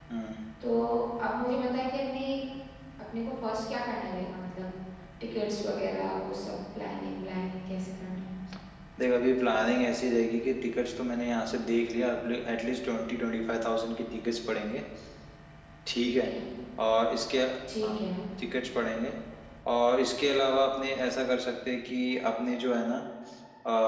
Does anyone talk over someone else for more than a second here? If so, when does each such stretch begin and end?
none

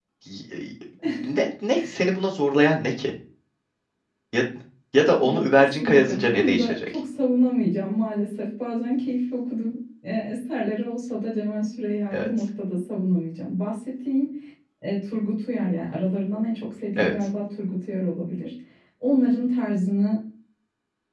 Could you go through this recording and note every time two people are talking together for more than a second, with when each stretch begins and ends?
5.2-6.9

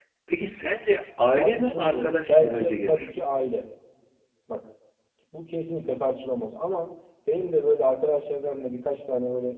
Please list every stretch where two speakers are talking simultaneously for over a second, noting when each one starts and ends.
1.3-3.1

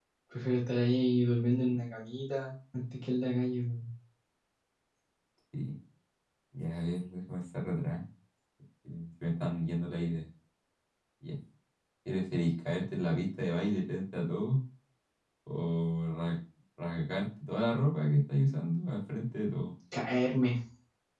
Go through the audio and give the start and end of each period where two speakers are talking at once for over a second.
none

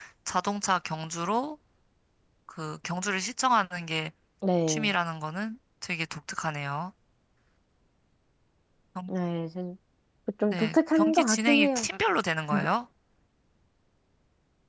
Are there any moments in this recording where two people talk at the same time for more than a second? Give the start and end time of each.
10.5-11.9

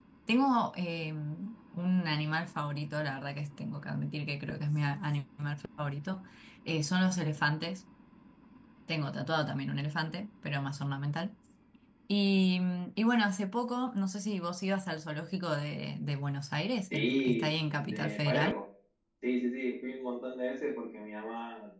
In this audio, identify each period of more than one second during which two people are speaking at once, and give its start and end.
16.9-18.5

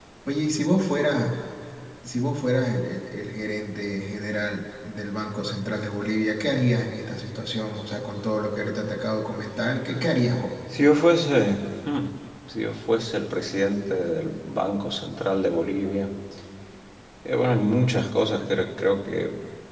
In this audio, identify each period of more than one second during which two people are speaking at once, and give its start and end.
none

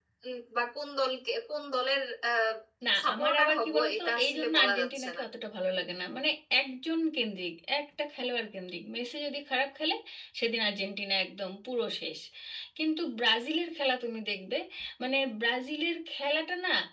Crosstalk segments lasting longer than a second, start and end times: 3.0-5.2

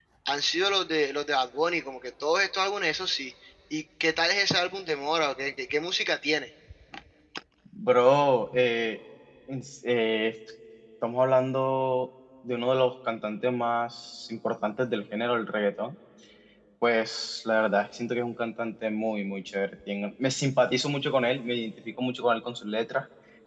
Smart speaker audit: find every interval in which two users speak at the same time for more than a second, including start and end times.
none

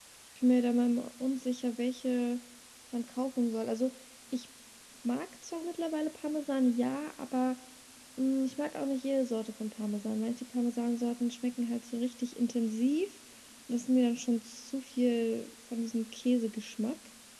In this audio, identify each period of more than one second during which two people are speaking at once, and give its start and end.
none

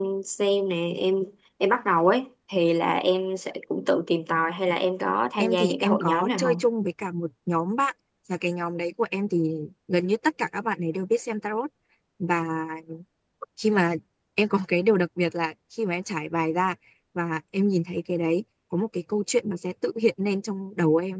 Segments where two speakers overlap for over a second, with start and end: 5.4-6.6

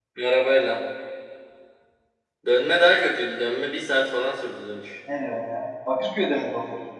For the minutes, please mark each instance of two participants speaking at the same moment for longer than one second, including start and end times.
none

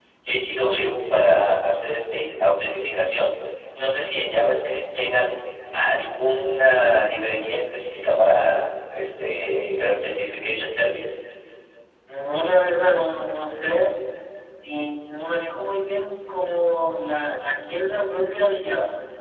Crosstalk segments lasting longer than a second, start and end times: none

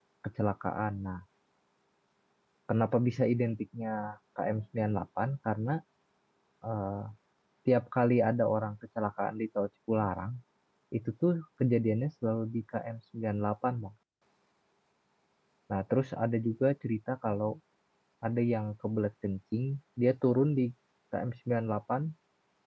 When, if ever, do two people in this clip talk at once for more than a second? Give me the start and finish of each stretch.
none

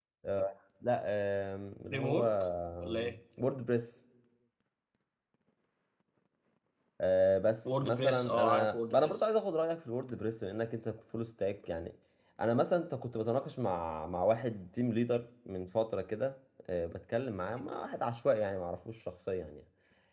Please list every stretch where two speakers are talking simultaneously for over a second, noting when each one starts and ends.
7.7-9.3

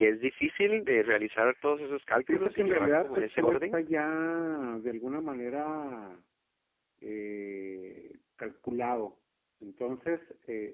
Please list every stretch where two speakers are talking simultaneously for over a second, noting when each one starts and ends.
2.3-3.8

